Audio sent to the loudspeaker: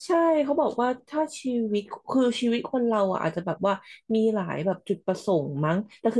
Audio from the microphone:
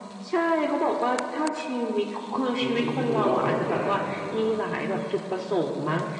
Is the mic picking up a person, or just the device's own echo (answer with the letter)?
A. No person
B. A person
B